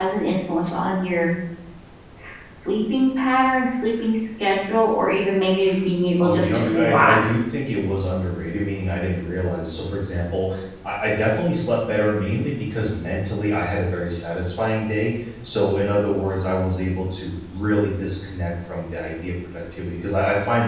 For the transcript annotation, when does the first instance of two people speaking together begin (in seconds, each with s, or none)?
6.2 s